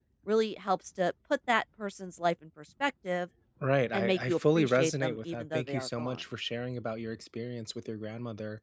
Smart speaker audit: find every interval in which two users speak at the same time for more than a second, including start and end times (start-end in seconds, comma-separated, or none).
3.9-6.2